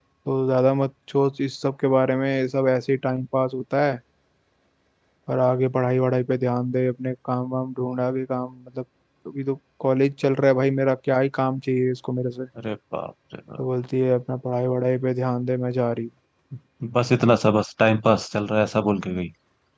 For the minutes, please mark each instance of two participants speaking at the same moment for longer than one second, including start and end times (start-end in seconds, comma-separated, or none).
none